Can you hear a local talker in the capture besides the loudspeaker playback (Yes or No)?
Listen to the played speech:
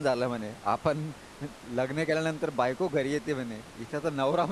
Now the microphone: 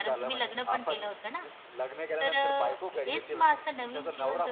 Yes